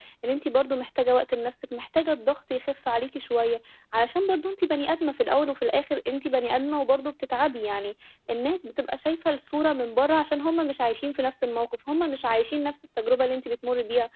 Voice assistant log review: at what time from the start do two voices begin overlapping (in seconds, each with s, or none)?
none